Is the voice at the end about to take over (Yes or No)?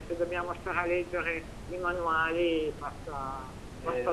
No